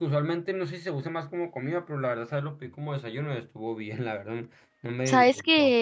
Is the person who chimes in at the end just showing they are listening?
No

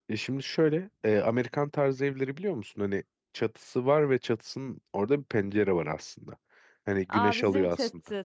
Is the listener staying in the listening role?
No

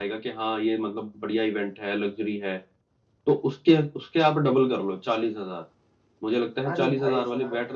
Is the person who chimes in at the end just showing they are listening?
No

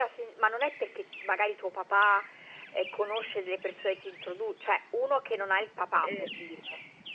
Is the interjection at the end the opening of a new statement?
No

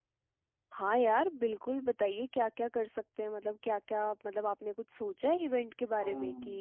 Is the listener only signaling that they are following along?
No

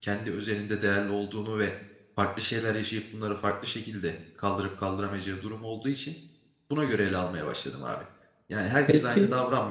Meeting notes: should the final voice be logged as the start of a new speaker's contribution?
No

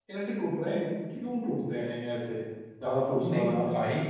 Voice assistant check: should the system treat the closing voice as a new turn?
Yes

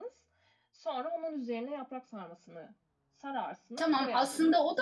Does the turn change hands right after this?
Yes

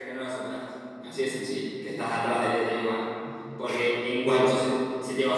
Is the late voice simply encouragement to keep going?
Yes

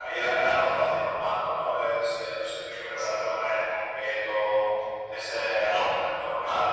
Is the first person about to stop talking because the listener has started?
No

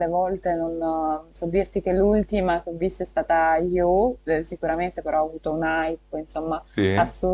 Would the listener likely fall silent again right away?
Yes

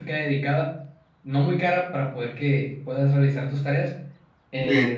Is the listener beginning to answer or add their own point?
No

